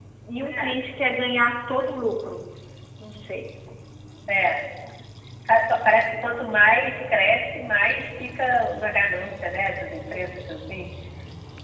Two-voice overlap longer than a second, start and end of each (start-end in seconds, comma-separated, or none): none